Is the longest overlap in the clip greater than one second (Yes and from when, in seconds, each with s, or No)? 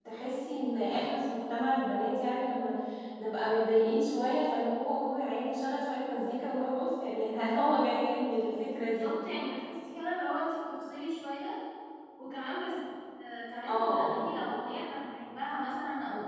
No